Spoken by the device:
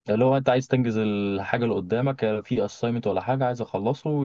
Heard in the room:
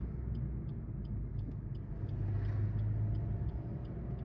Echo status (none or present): none